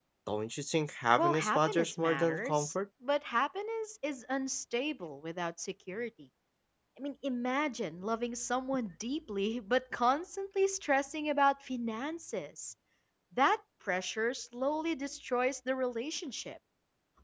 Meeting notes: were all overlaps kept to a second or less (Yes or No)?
No